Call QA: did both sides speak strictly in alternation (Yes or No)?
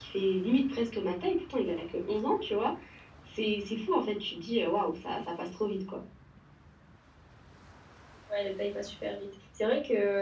Yes